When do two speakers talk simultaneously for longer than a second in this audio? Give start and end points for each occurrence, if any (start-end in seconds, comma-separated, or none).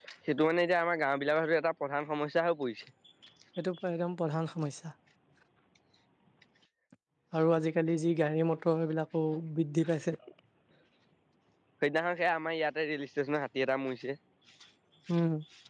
none